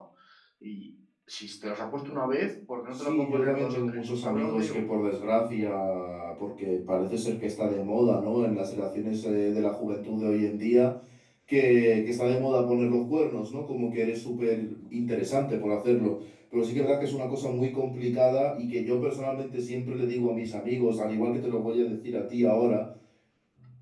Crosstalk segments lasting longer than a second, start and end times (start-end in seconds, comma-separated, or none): 3.0-4.8